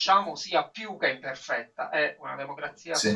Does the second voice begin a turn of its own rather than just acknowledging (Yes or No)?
No